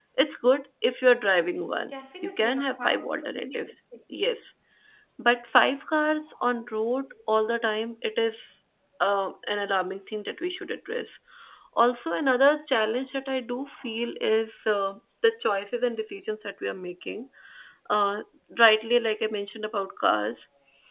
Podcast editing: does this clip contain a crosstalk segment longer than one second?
Yes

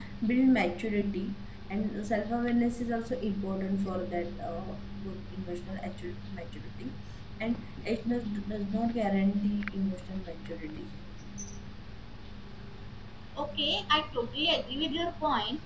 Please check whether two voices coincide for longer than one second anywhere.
No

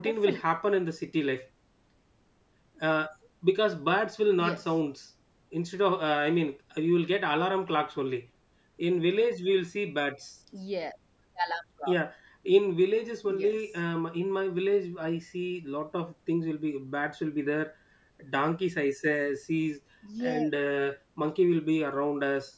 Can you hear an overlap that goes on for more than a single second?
No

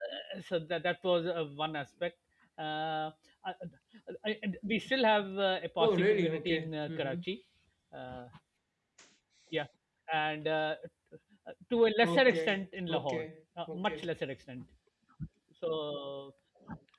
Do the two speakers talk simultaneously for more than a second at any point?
Yes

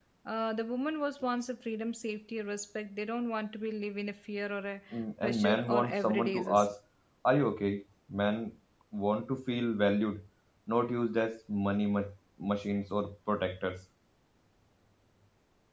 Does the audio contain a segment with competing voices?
Yes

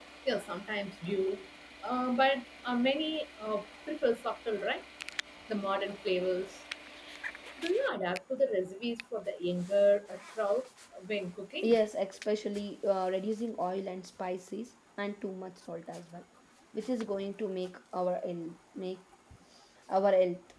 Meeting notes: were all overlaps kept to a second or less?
Yes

